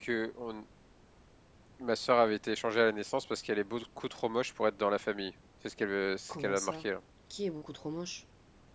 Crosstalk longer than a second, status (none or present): none